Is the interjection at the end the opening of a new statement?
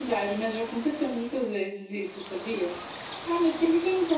No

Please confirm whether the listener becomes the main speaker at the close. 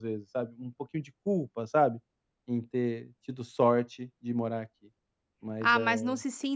Yes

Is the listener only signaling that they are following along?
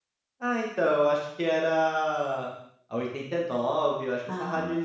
Yes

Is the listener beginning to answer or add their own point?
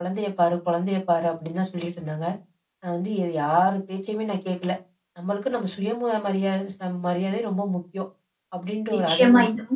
Yes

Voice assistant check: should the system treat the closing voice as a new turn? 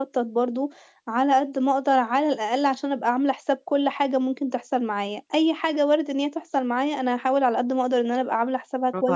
No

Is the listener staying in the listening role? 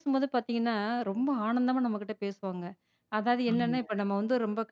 Yes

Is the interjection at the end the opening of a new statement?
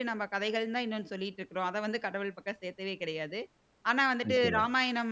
No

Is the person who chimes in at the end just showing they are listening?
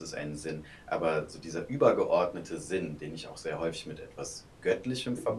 Yes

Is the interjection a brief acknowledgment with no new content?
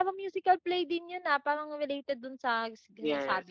No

